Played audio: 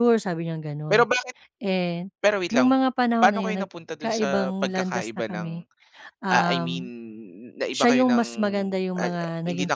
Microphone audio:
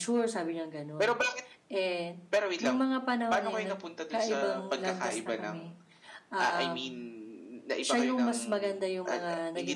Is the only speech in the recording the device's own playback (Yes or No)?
Yes